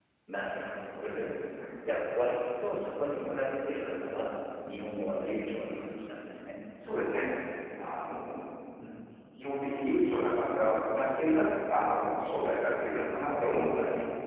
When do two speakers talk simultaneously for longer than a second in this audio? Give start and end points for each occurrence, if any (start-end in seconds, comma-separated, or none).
none